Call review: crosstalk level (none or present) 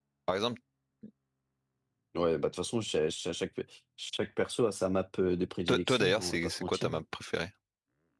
present